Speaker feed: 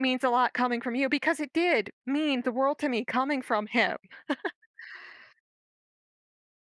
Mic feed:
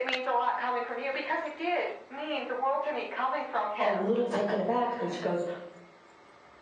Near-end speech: present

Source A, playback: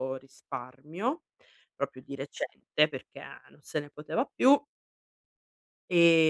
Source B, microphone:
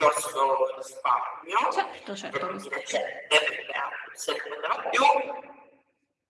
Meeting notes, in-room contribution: present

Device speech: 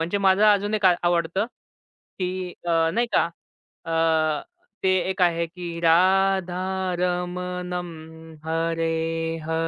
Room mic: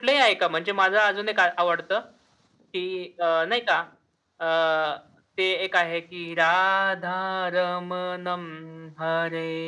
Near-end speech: none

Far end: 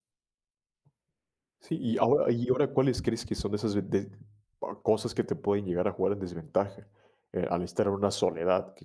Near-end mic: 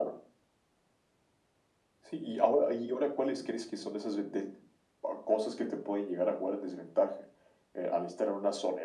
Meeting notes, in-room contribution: none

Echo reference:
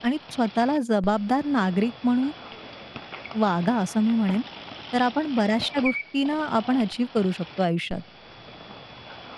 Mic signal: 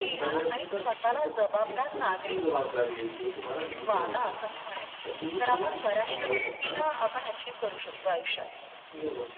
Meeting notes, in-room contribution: present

